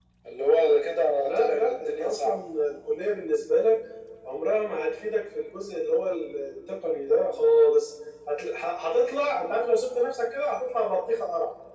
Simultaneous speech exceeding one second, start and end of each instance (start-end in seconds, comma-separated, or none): 1.2-2.4